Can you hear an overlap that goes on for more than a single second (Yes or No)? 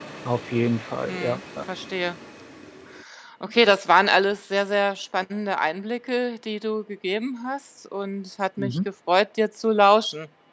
No